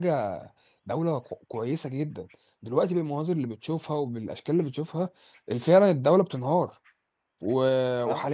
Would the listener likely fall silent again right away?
Yes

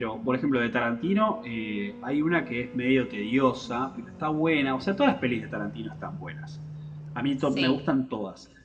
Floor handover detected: No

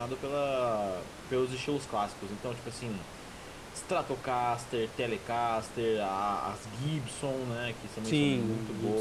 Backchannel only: No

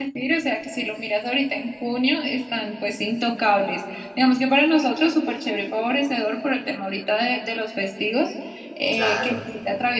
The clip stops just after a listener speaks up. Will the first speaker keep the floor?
Yes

